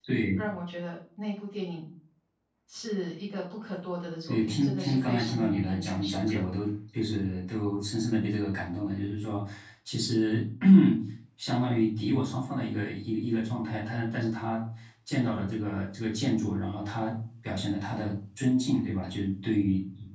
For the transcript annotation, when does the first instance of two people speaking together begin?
4 s

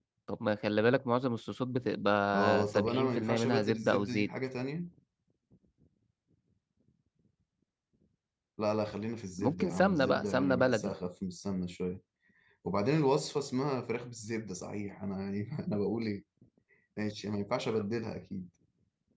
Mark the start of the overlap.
2 s

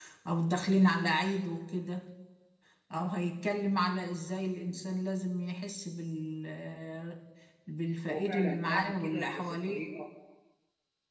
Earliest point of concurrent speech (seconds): 8 s

